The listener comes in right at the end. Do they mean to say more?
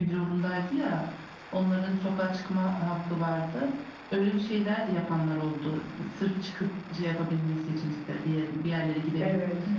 Yes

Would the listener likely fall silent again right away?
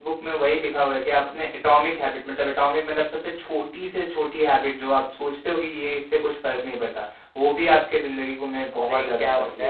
No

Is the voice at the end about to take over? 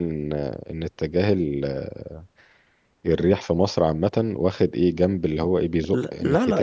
Yes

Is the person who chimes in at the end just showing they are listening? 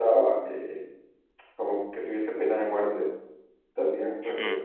Yes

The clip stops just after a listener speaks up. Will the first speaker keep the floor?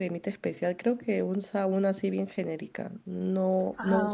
Yes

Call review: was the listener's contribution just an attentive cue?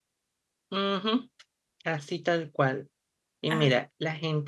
Yes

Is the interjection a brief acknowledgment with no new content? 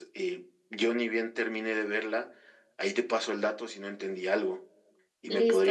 No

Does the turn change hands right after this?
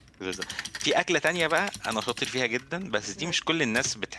No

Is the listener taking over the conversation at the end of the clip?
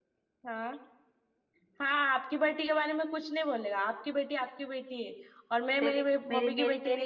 Yes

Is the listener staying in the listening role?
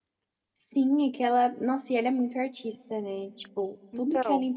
Yes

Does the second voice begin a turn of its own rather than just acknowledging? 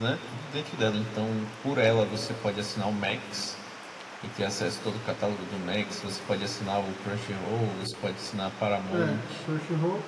Yes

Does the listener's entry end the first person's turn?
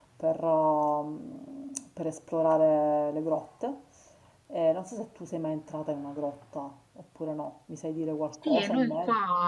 Yes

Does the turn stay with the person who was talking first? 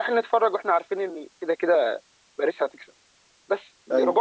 Yes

